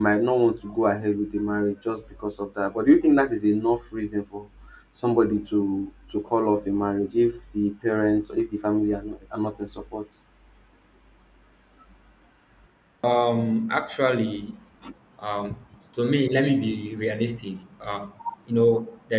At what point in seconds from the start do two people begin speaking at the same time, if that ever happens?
none

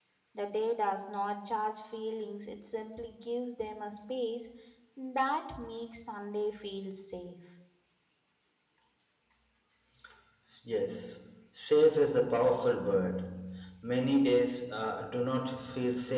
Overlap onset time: none

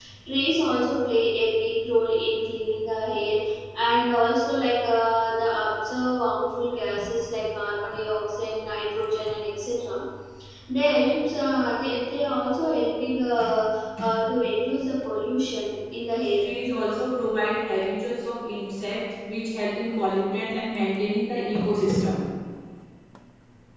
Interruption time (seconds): none

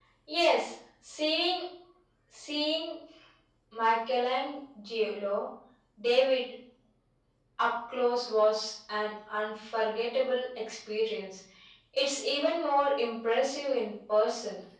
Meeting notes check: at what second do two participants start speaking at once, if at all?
none

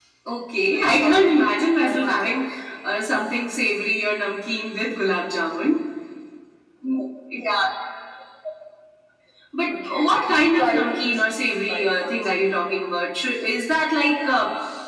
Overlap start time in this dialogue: 0.7 s

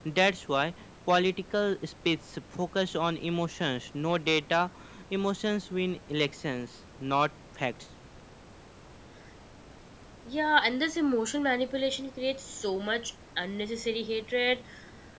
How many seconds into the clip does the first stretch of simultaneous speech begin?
none

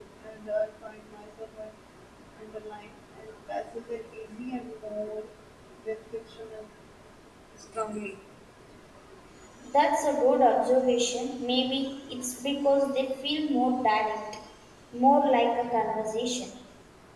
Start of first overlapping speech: none

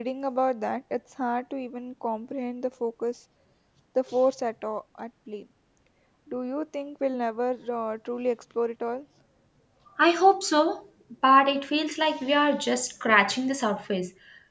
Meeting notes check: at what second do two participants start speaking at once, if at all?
none

